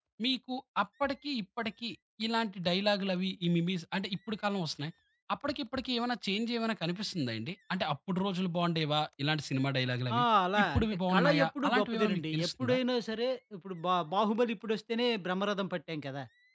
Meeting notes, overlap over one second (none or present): present